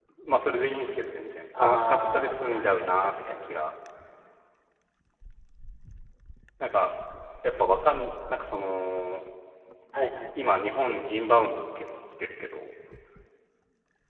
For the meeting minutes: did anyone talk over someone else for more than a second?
Yes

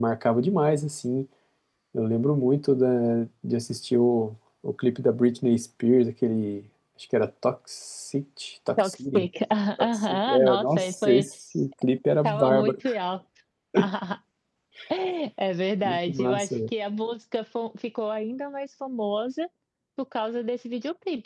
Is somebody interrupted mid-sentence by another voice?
Yes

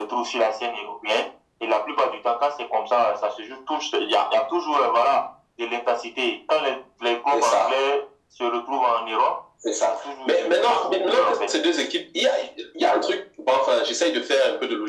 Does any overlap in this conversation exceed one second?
Yes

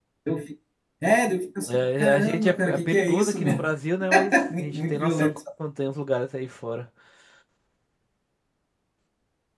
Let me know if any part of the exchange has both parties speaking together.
Yes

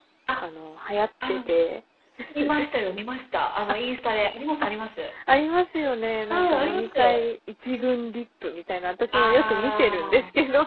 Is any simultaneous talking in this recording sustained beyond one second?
Yes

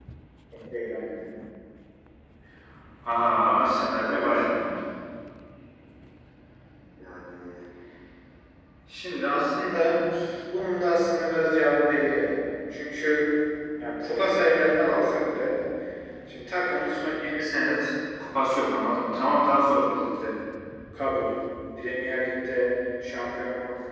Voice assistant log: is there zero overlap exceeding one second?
Yes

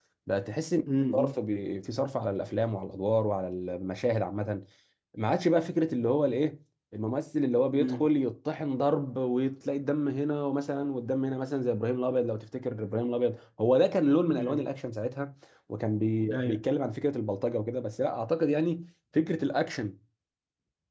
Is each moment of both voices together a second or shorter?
Yes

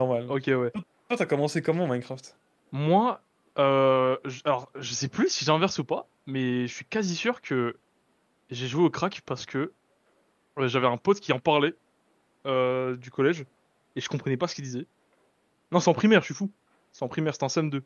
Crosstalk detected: No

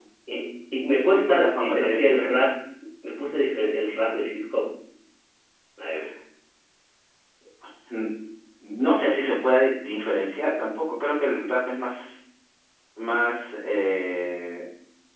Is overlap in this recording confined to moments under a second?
No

